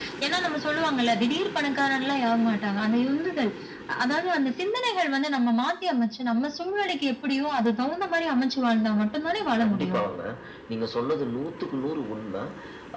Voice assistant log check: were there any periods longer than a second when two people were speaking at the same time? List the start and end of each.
none

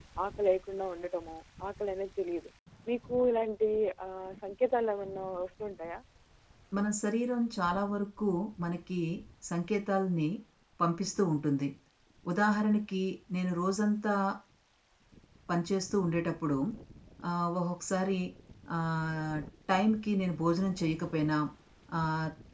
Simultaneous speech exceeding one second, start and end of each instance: none

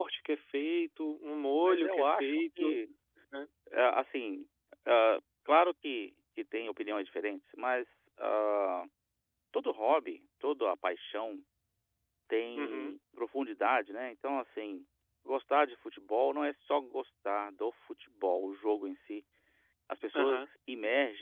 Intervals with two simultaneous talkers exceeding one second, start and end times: 1.6-2.8

